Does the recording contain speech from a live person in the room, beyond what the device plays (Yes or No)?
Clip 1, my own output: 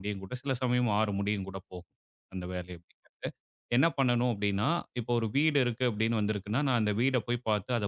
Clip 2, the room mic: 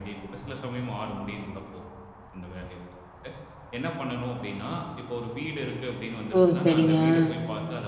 Yes